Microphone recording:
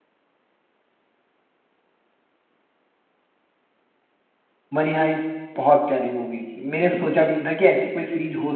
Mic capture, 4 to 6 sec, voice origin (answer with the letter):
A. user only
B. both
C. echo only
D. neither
A